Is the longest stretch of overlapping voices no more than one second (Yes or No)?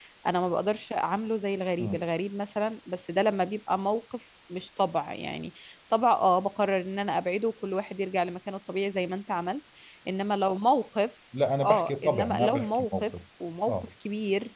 No